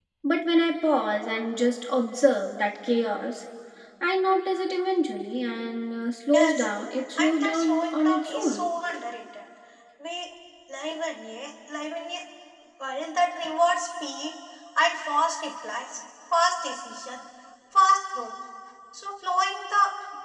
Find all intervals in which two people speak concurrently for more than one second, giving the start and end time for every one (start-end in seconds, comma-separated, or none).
7.2-8.6